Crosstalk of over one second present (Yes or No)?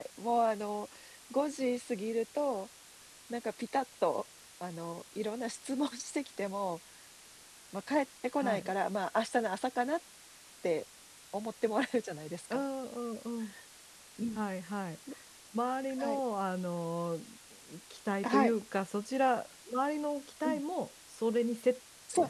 No